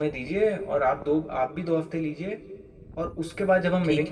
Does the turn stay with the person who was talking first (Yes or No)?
Yes